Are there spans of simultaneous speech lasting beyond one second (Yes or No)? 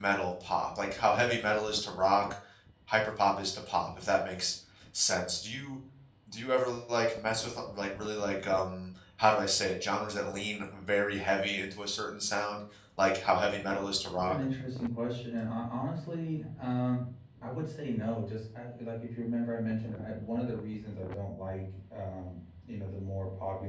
No